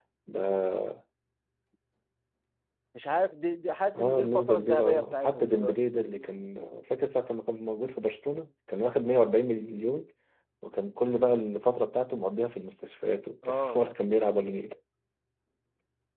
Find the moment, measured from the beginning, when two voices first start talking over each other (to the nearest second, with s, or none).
4 s